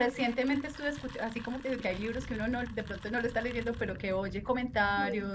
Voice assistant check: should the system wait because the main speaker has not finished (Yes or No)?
Yes